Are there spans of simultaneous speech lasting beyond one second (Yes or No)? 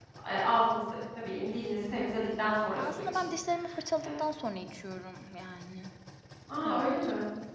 No